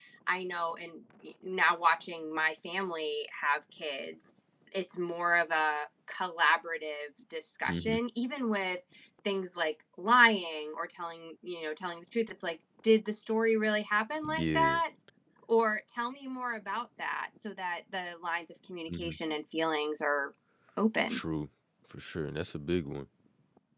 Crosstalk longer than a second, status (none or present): none